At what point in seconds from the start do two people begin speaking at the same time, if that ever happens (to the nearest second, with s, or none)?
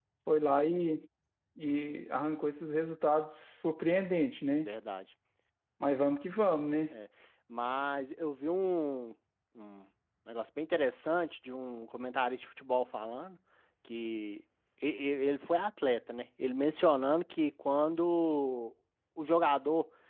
none